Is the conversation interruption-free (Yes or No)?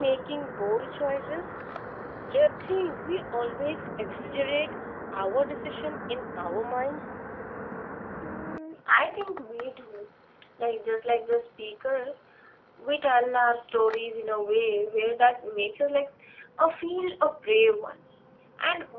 Yes